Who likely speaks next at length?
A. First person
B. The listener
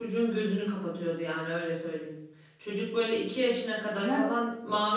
A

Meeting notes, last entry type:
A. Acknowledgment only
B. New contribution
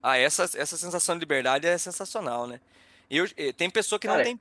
A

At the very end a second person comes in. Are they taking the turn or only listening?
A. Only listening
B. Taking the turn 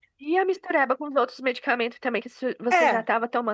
A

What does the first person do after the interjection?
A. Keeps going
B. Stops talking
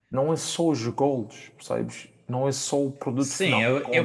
B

